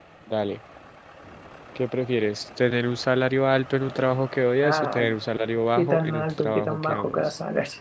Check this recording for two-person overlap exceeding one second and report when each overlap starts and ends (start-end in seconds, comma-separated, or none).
5.8-7.2